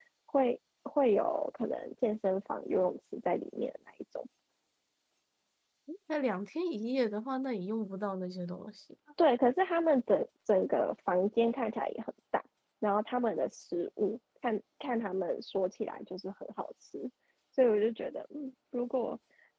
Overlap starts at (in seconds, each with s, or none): none